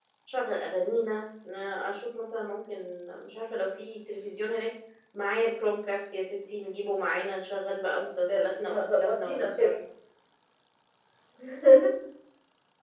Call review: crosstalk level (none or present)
present